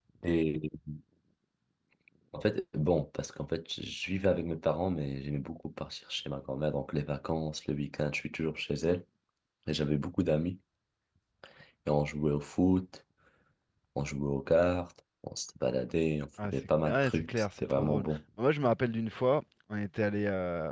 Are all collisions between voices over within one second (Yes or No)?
No